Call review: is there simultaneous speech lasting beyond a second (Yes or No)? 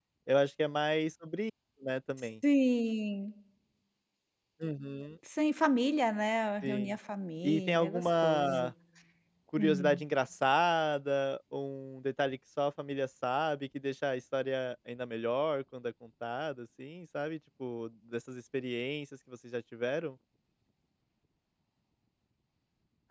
Yes